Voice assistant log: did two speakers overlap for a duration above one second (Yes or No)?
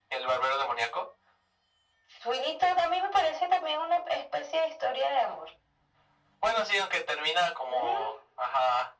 No